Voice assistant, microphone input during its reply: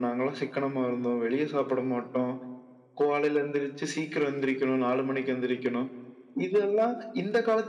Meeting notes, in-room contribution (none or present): none